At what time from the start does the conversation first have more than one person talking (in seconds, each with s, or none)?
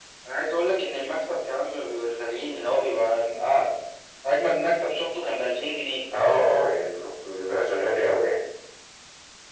none